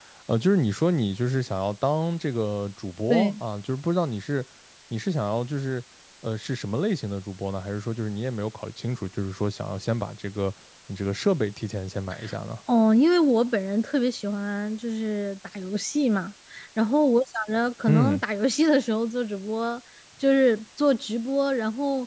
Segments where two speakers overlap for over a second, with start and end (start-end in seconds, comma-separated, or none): none